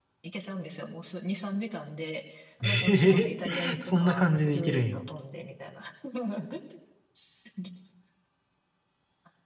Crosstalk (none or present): present